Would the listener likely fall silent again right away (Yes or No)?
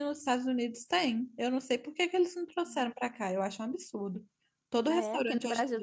No